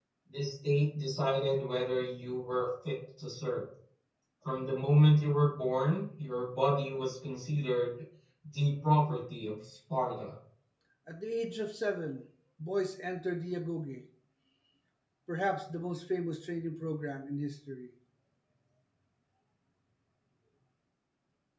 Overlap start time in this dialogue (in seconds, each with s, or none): none